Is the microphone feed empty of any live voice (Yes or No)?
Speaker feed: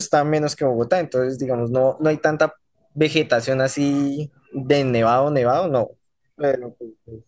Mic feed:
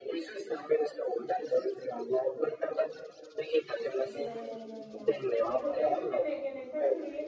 No